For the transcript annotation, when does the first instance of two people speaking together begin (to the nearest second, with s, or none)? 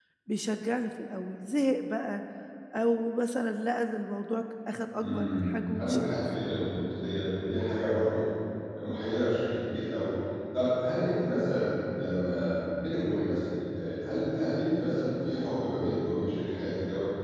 5 s